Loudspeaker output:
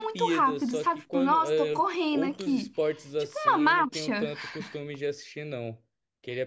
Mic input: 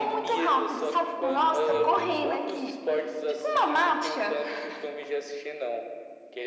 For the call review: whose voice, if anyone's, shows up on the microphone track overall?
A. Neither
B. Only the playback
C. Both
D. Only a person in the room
C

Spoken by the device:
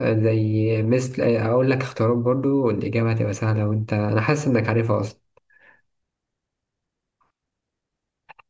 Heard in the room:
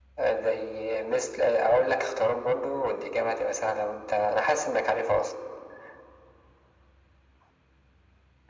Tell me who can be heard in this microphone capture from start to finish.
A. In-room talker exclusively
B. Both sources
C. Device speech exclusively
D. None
C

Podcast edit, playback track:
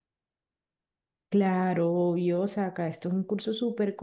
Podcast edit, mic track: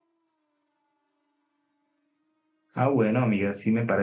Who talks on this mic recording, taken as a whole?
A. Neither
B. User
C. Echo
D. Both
B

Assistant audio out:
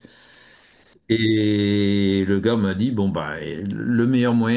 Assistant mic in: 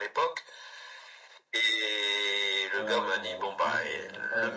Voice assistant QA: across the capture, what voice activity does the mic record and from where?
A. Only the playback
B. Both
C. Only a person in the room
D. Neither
B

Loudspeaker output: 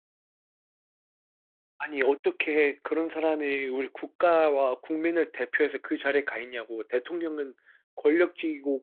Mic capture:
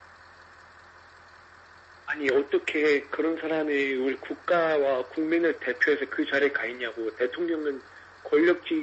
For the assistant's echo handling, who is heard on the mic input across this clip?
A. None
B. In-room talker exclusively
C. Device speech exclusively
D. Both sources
C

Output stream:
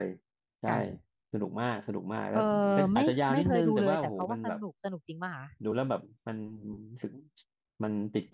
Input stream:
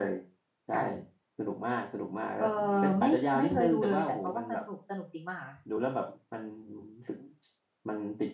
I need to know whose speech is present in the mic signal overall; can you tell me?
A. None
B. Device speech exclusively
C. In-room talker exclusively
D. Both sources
B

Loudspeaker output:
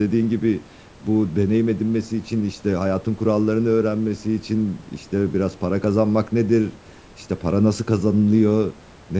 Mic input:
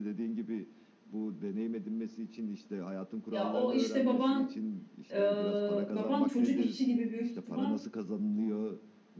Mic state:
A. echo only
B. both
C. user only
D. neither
B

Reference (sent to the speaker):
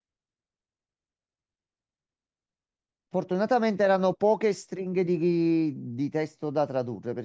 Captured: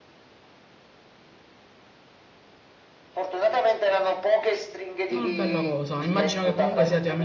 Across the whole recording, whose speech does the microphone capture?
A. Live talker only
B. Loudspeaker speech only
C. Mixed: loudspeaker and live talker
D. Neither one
C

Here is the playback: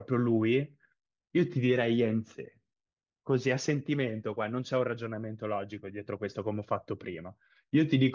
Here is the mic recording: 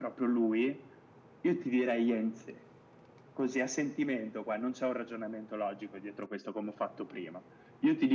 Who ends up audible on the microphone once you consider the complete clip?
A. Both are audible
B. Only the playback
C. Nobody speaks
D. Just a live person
B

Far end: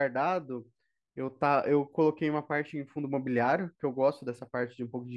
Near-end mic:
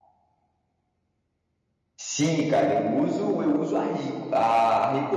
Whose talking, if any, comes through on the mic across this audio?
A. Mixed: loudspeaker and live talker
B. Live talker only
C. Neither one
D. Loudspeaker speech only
B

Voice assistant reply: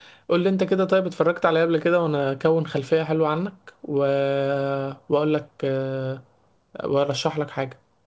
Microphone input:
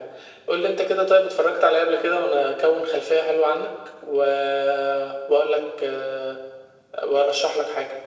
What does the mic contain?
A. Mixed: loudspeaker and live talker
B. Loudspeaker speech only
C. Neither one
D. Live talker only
B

